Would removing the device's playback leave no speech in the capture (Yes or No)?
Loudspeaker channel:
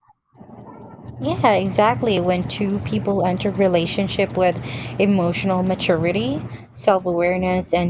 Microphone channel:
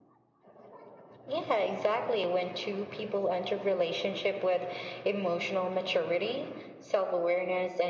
Yes